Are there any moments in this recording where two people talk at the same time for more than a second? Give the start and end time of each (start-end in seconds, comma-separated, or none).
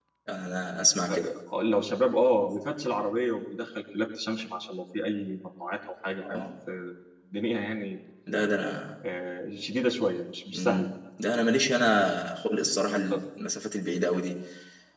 none